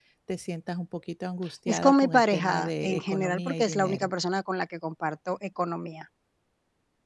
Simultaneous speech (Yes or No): Yes